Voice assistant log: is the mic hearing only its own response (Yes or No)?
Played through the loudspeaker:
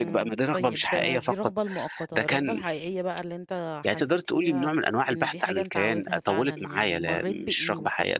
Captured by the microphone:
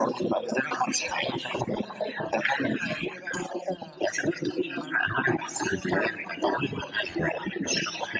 Yes